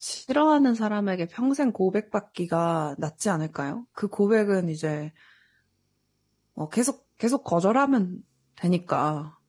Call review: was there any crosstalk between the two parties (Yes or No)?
No